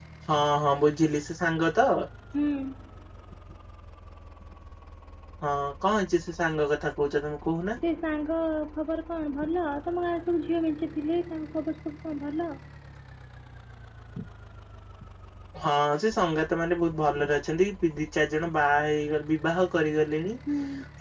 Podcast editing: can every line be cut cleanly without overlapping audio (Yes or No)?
Yes